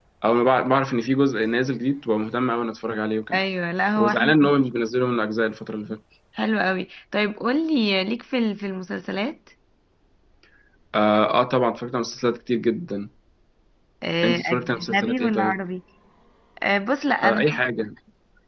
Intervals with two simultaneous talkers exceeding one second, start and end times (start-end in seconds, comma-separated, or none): 14.2-15.5